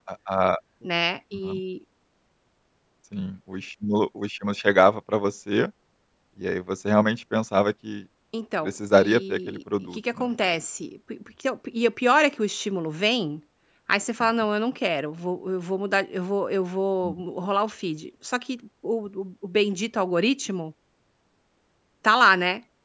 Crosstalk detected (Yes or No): Yes